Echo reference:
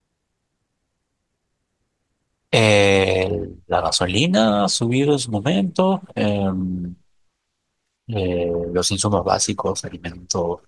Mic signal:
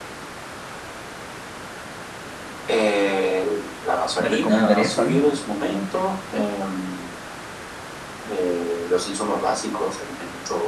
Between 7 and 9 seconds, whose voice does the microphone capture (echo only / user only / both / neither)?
echo only